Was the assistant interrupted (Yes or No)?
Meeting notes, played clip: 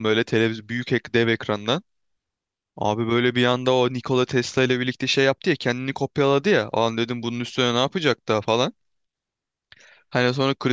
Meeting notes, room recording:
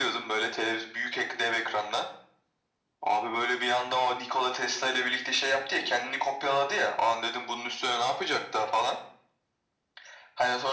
No